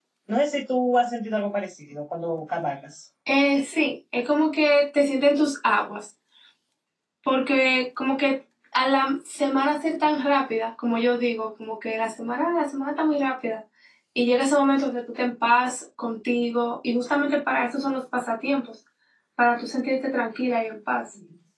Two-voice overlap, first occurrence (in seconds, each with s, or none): none